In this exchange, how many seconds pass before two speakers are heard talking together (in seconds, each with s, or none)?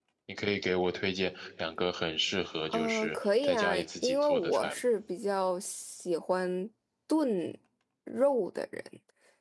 2.7 s